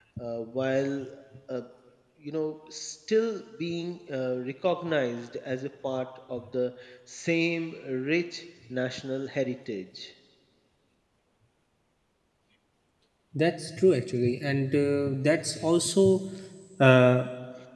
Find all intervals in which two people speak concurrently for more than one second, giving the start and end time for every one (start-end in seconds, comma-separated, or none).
none